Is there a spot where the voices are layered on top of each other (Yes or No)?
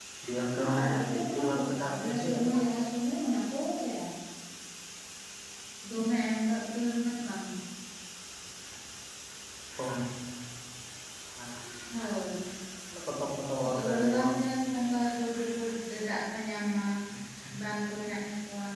Yes